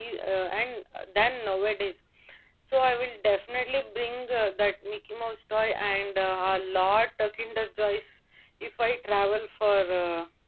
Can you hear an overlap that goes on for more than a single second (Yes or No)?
No